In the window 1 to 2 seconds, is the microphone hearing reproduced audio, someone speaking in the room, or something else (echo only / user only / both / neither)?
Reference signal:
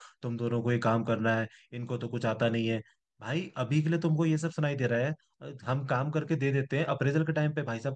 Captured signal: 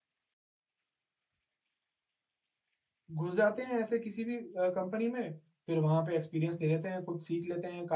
neither